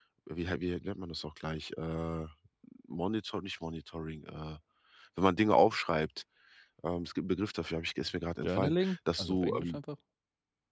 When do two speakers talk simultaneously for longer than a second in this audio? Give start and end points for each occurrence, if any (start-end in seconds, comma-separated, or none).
8.4-9.8